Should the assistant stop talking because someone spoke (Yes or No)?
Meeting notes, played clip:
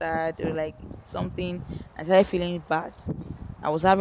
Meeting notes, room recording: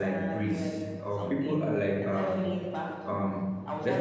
Yes